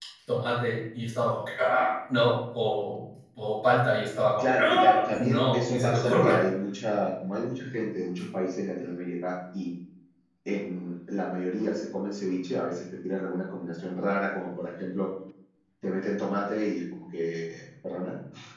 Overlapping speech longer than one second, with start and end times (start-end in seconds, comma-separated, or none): 4.4-6.4